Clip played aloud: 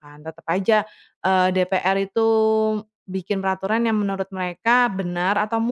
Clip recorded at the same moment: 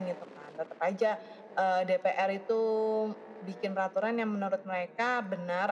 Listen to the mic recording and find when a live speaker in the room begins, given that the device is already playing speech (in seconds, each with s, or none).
none